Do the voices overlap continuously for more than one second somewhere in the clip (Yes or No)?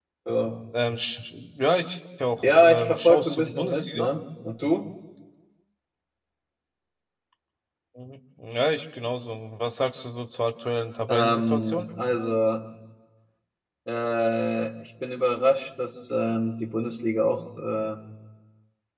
Yes